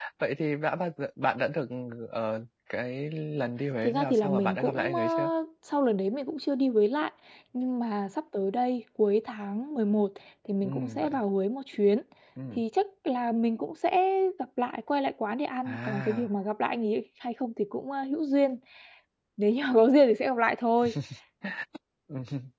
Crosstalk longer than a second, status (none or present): present